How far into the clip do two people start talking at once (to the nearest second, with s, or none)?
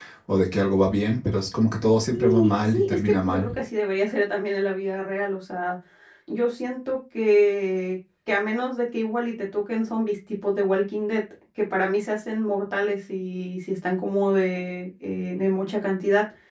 2 s